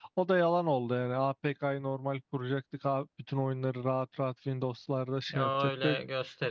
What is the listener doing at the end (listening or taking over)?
taking over